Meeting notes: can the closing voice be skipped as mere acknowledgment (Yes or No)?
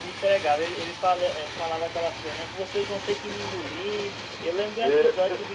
Yes